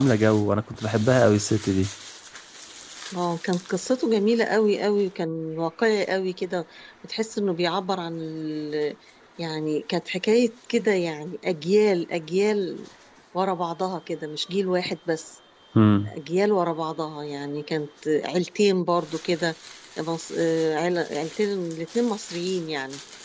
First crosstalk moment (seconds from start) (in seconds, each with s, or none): none